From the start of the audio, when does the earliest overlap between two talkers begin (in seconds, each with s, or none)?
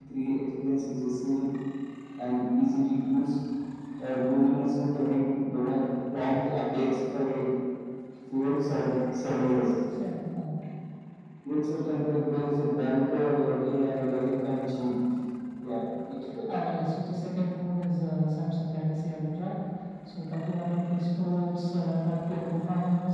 none